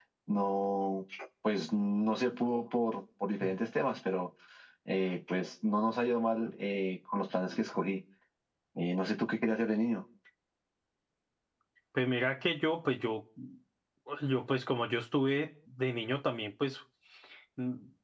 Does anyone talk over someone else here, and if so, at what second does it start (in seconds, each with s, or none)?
none